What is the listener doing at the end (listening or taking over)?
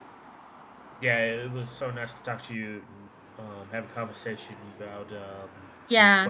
taking over